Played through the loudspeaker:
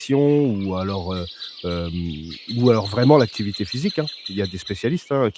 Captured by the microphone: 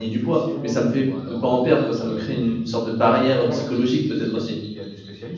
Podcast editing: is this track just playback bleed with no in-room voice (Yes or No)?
No